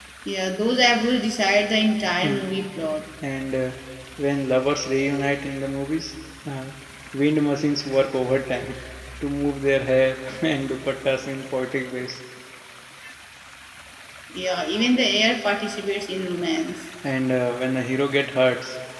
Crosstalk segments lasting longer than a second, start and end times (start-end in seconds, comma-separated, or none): none